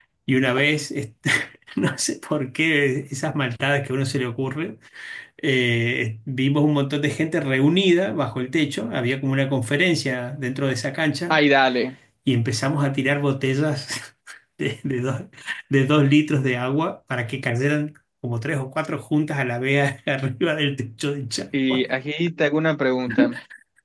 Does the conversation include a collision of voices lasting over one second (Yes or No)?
No